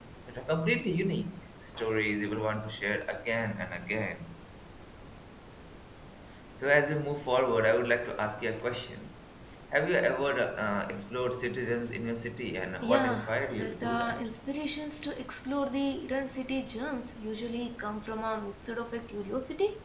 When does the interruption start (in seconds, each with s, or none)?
12.8 s